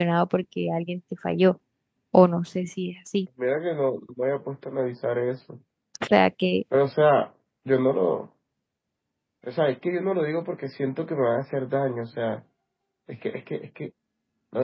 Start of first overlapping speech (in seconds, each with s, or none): none